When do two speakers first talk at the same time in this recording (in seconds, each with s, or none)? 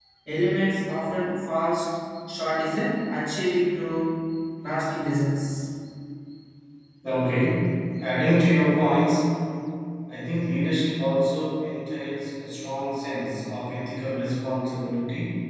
none